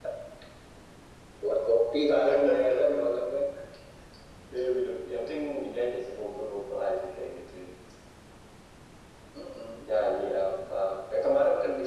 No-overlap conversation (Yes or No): Yes